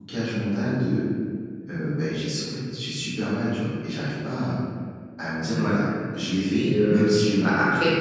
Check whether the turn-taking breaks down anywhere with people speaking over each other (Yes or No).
Yes